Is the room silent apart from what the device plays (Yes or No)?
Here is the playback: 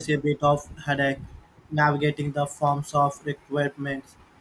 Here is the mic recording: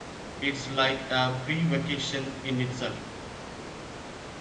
No